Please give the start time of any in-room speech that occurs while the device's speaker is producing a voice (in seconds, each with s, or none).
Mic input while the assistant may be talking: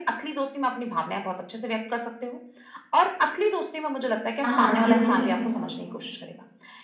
4.4 s